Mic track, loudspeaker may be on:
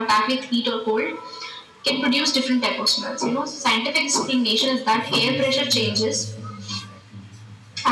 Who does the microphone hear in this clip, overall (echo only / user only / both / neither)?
both